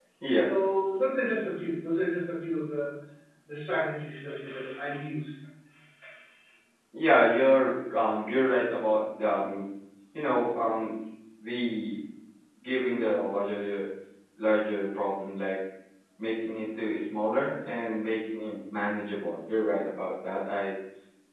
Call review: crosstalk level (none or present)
none